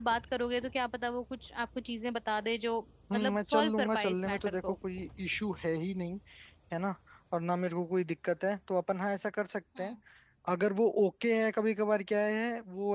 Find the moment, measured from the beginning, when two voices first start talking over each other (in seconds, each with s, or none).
3.1 s